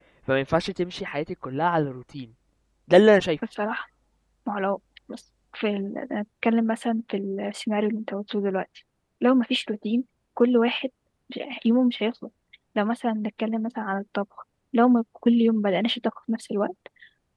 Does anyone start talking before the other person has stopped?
No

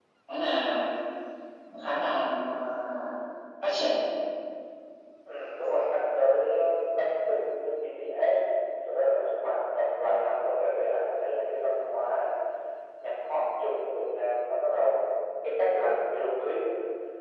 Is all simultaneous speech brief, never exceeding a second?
Yes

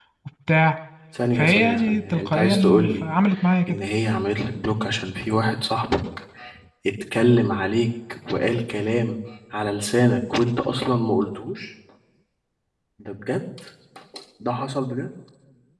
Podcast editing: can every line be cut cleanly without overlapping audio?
No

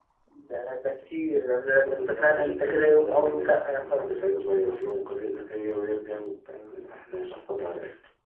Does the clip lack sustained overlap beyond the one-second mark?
No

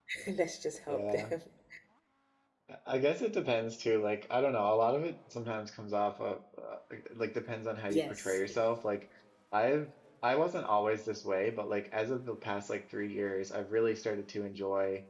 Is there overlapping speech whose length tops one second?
No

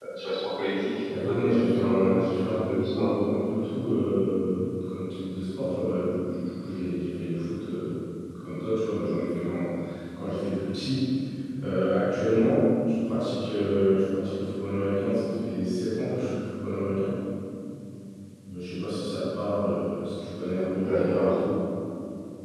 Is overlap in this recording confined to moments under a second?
No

